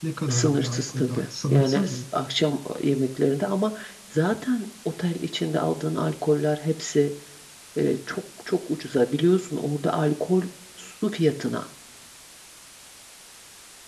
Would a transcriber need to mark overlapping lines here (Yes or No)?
Yes